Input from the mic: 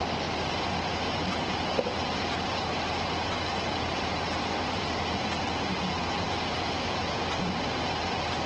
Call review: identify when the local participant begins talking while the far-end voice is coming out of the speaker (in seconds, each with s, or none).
none